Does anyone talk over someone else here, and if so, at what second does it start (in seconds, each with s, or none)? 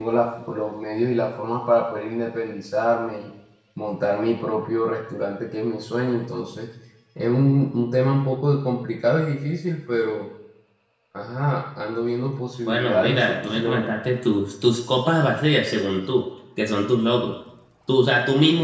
12.6 s